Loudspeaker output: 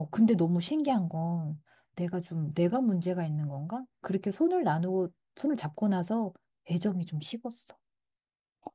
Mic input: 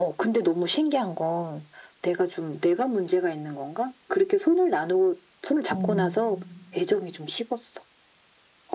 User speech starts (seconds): 5.7 s

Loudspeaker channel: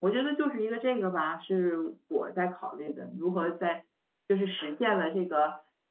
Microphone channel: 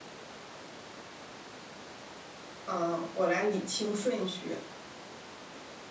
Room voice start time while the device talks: 2.6 s

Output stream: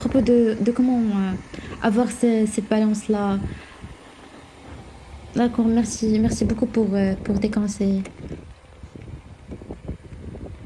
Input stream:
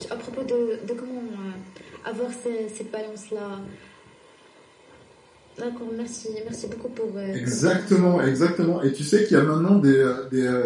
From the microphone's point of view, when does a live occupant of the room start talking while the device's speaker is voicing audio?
7.3 s

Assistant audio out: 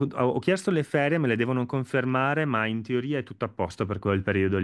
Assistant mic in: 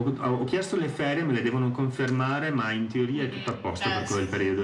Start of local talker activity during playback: 3.1 s

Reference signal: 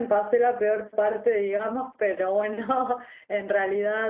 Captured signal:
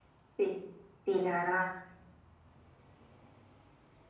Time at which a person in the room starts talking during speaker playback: 0.4 s

